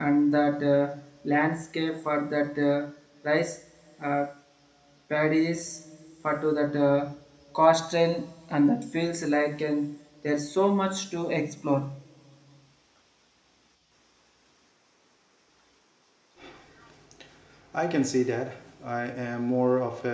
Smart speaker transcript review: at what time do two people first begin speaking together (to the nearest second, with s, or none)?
none